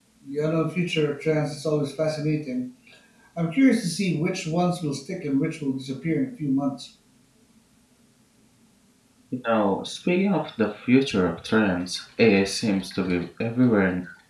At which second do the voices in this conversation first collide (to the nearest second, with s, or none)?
none